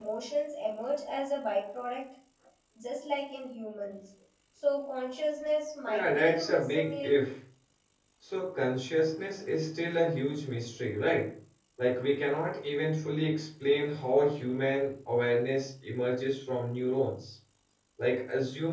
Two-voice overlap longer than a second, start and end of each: 5.9-7.2

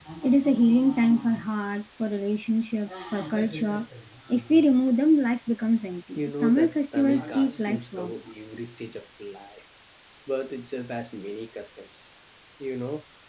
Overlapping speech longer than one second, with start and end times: 6.1-8.2

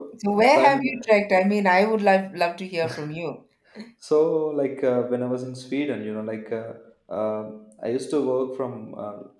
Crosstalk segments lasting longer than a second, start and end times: none

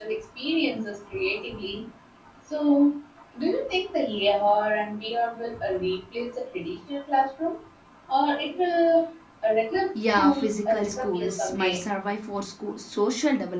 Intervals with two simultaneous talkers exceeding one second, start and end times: 10.0-11.9

